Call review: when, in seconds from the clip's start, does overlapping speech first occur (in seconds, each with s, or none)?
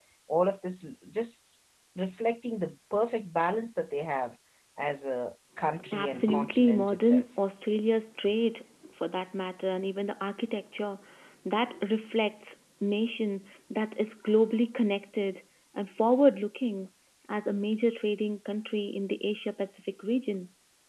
5.8 s